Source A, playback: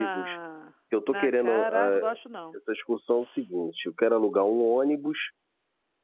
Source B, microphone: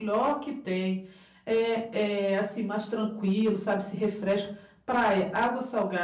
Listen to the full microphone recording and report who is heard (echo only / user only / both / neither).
user only